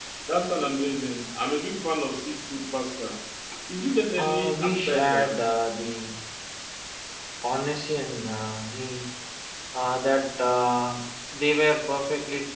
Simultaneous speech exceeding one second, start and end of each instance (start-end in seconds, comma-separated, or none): 4.2-5.5